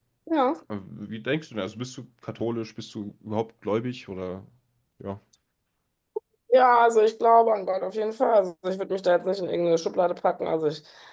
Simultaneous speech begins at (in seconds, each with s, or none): none